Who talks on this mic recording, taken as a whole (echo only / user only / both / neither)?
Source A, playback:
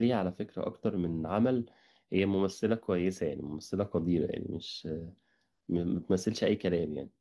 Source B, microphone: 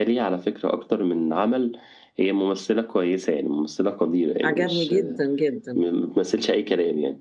both